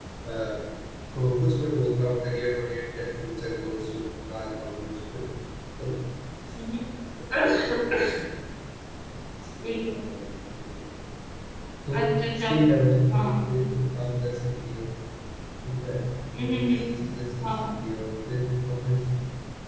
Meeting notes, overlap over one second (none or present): none